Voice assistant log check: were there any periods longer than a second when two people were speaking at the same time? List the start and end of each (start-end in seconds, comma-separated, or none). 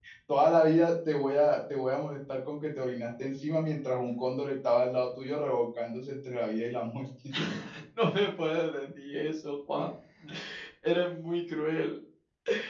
none